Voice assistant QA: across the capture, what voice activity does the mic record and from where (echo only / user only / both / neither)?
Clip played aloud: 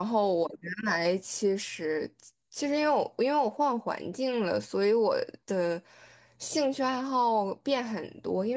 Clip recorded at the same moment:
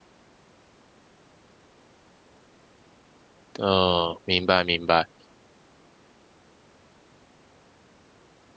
user only